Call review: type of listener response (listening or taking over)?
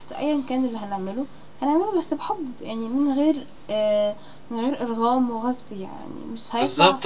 taking over